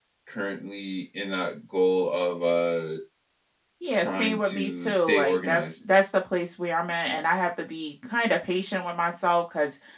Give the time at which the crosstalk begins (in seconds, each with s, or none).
3.9 s